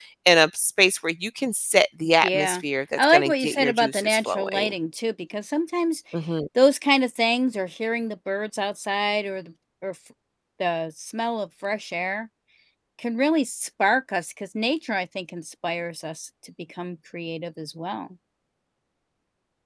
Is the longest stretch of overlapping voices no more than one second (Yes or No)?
No